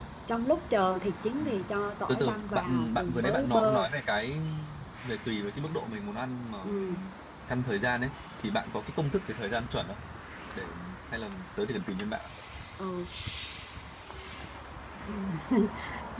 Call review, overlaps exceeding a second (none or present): present